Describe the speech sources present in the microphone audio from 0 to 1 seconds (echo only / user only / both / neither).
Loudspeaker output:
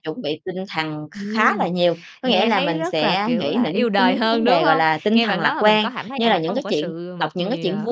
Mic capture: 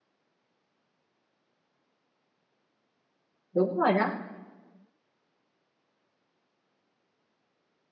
neither